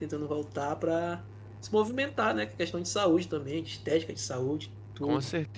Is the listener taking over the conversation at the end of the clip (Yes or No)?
Yes